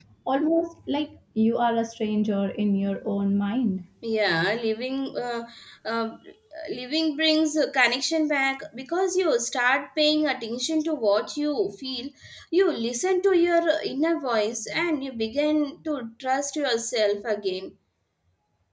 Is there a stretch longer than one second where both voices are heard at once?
No

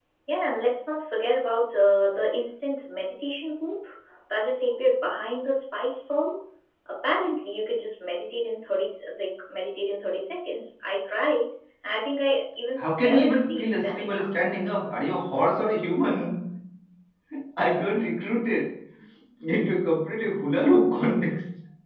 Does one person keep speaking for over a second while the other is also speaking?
Yes, from 12.8 s

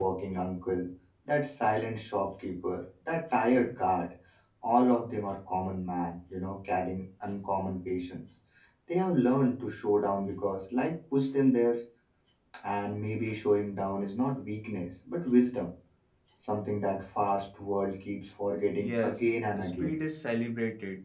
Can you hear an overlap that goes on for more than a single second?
Yes, from 18.7 s

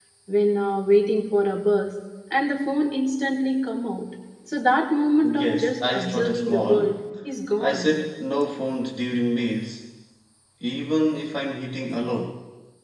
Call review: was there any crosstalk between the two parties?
Yes, from 5.2 s

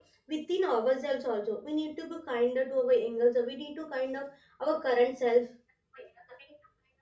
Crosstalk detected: No

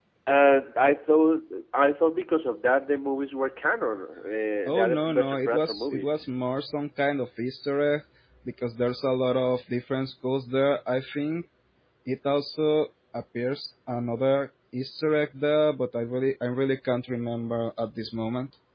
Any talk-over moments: Yes, from 4.7 s

